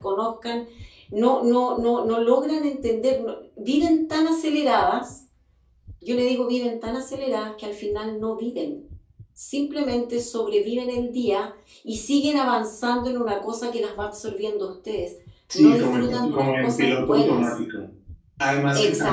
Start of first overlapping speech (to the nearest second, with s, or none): 16 s